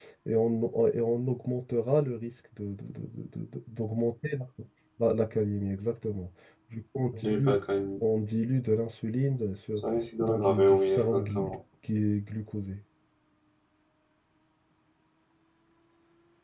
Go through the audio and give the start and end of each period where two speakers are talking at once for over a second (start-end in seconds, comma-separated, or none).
10.2-11.6